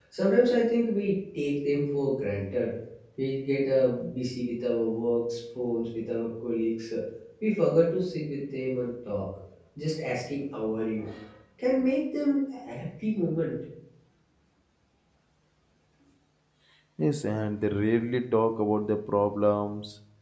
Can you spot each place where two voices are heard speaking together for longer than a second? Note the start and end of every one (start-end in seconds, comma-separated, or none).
none